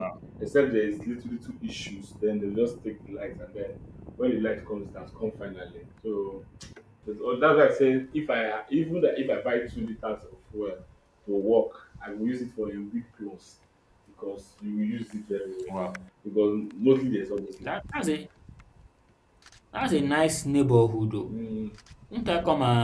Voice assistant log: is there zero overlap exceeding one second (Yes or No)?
Yes